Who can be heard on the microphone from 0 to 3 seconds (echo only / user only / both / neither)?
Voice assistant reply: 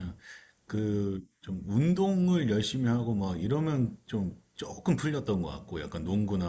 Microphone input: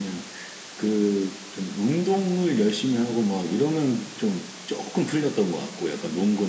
echo only